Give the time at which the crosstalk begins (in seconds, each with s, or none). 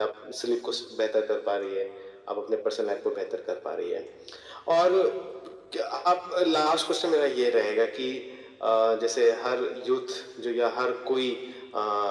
none